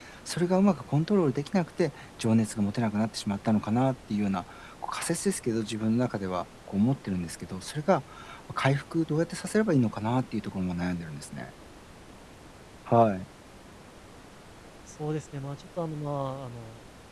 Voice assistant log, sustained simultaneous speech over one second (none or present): none